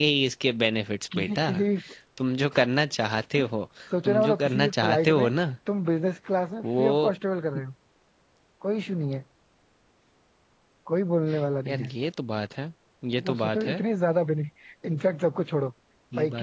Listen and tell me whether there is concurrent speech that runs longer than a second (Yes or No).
Yes